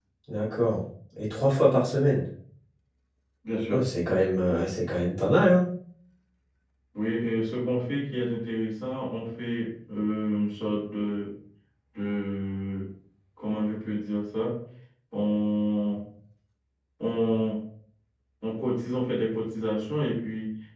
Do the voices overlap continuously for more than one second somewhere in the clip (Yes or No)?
No